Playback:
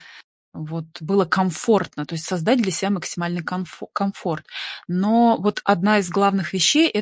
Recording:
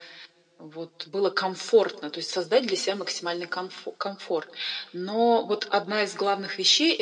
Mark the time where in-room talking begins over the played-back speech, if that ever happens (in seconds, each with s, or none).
none